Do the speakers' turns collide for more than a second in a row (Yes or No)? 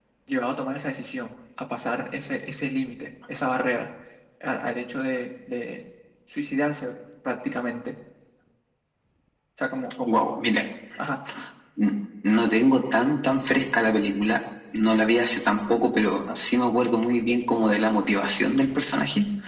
No